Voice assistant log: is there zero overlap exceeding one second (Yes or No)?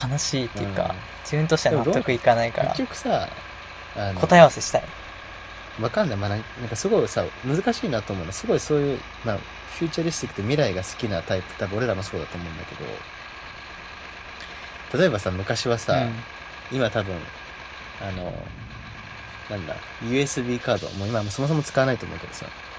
Yes